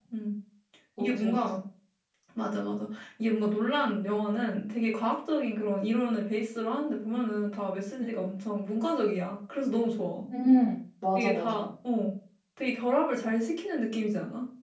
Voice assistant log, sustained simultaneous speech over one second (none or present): none